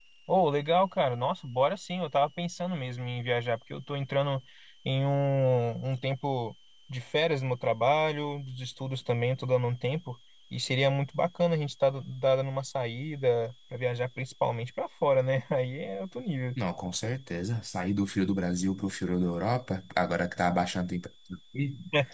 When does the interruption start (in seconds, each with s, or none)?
none